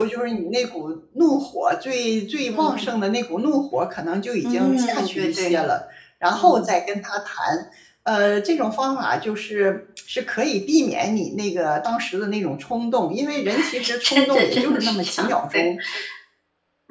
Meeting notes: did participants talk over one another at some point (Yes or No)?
Yes